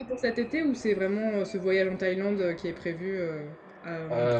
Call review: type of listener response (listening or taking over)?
taking over